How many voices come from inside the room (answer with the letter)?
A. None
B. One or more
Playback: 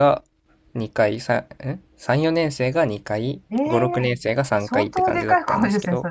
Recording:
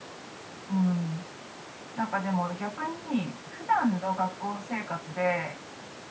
B